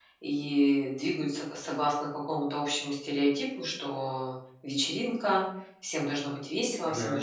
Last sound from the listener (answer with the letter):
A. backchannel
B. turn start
A